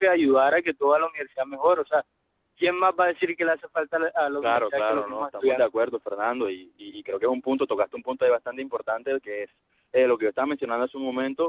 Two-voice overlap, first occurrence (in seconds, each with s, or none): 4.4 s